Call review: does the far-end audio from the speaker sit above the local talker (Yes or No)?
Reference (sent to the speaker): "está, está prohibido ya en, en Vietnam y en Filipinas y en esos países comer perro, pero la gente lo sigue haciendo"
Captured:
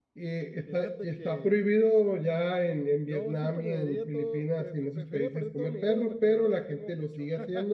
Yes